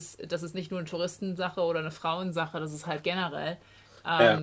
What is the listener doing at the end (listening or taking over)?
listening